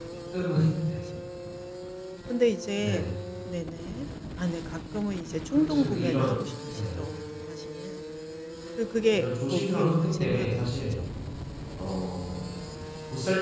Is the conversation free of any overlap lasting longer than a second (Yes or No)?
No